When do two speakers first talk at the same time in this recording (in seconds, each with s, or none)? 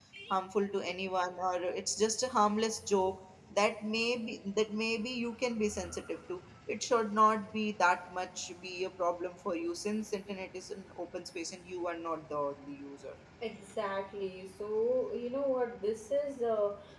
none